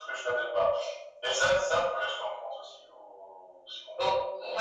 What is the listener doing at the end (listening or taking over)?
taking over